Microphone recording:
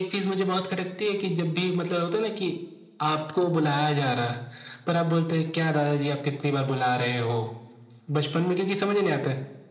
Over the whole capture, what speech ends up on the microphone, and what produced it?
echo only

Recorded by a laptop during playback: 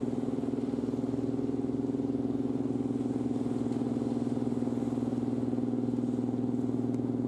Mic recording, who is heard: neither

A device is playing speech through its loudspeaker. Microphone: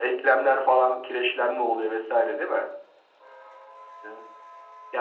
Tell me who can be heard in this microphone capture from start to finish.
echo only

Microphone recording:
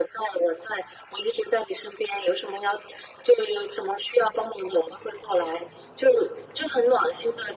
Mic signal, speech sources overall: echo only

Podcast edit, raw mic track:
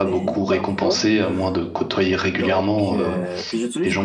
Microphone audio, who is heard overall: both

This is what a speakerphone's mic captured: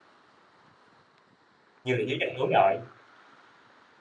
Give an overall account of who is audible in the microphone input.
user only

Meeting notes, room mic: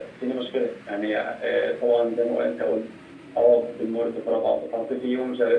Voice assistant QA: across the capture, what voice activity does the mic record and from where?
echo only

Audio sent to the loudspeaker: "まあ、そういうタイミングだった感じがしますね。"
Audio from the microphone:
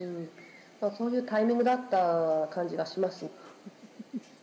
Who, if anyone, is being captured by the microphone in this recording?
echo only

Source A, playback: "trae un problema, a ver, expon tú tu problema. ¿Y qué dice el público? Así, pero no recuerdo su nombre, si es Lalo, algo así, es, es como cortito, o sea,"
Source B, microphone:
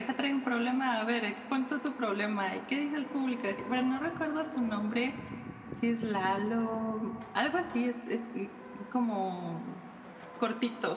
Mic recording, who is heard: echo only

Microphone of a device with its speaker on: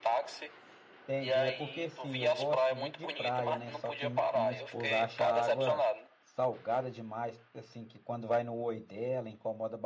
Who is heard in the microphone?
both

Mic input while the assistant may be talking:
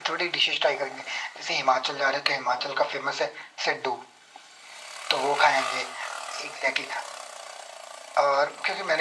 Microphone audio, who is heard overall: echo only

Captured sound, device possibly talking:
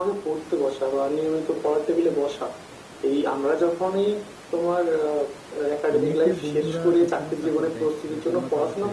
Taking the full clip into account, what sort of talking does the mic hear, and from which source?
both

